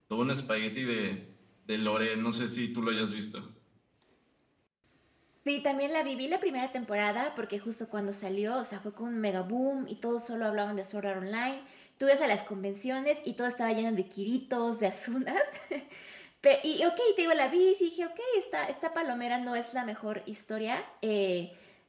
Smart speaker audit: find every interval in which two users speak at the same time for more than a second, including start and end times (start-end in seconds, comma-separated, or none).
none